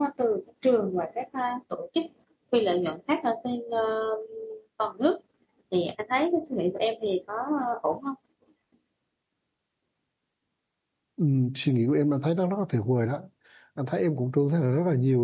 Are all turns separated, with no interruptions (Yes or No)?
Yes